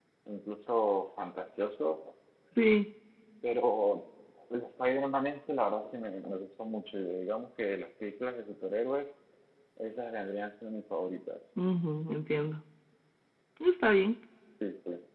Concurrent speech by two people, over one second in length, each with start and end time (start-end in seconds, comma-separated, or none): none